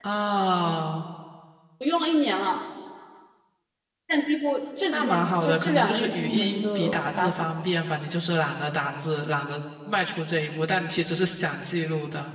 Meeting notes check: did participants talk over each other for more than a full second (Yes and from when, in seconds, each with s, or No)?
Yes, from 4.9 s